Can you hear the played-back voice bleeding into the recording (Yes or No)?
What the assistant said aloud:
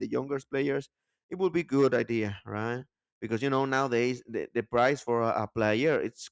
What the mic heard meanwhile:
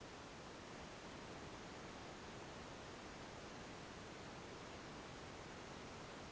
No